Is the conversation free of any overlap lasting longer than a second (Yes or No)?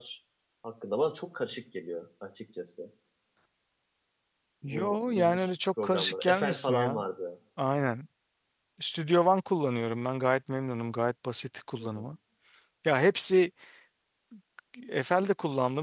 No